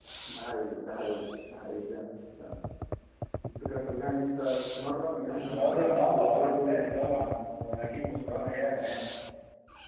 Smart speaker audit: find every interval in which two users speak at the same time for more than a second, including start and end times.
5.3-6.8

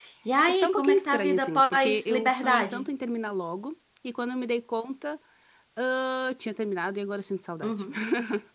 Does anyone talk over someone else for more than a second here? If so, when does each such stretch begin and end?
0.6-2.9

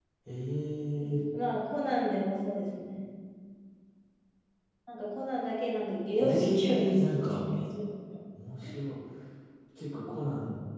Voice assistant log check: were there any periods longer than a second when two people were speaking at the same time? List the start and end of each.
6.2-7.5

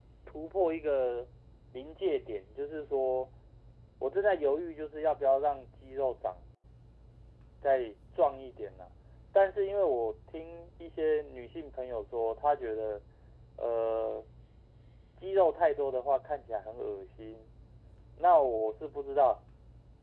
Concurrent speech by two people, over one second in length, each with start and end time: none

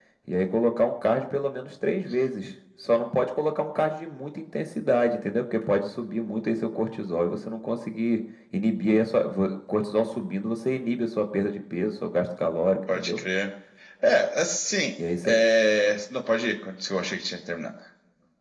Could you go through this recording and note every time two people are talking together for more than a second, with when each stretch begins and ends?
none

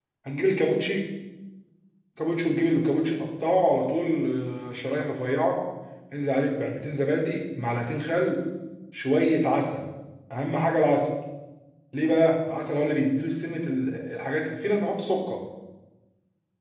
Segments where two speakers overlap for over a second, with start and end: none

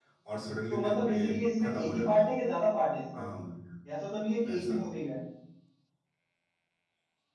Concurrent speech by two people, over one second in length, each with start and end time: 0.7-2.2

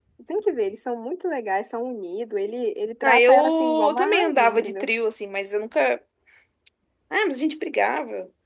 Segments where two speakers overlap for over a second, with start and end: 3.0-4.9

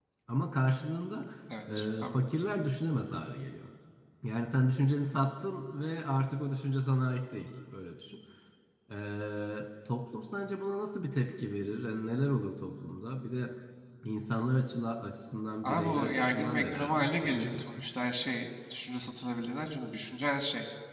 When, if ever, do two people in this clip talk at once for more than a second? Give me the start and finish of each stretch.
15.6-17.8

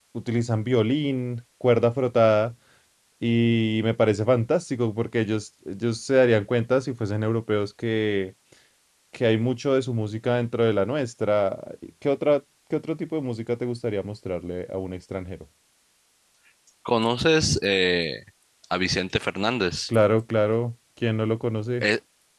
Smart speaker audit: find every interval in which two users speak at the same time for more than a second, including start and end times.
none

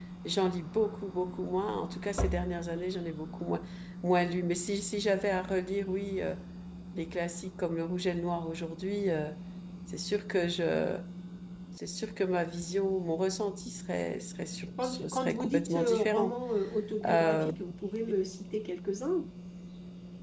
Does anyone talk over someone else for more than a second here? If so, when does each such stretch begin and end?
14.8-16.4

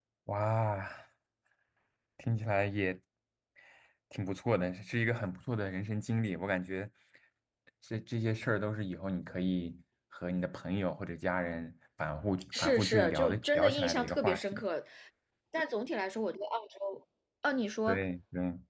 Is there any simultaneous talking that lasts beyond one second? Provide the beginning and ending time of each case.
12.6-14.6

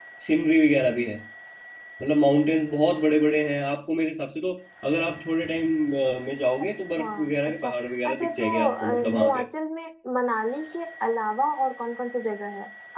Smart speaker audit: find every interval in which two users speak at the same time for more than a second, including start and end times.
8.1-9.4

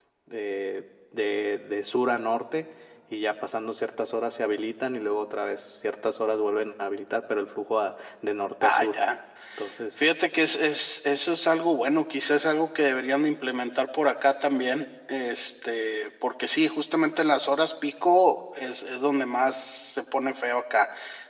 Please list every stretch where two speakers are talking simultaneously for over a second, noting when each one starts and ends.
none

